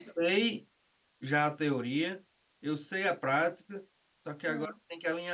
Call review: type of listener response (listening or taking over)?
listening